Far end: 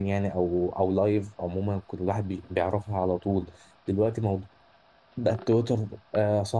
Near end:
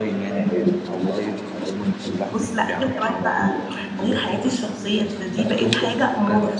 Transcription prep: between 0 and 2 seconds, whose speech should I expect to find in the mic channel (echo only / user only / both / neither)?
echo only